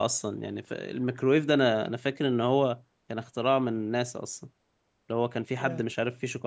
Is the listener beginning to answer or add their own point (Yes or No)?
No